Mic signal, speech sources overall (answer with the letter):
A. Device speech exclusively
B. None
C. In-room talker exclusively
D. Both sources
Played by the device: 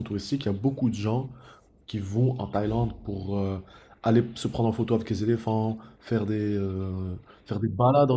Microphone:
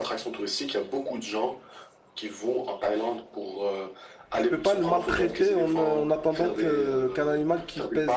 D